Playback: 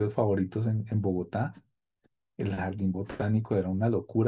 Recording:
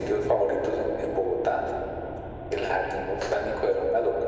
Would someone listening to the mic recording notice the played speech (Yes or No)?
Yes